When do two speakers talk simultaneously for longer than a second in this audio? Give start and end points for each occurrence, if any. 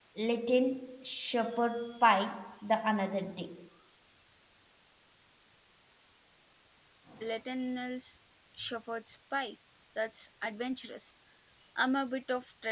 none

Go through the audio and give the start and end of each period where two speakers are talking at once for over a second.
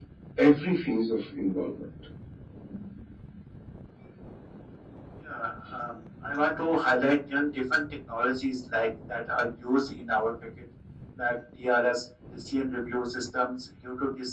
none

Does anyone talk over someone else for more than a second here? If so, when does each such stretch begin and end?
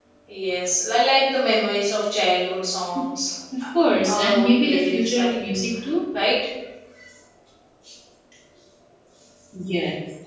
4.0-5.3

